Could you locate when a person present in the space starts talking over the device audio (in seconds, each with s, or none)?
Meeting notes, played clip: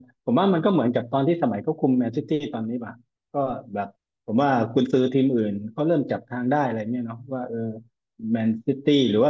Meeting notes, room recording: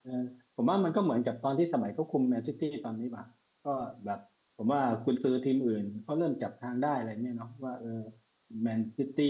none